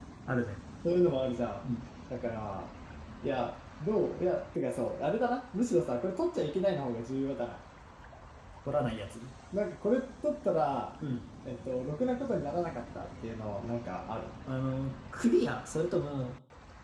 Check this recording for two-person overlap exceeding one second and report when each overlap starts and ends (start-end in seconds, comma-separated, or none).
none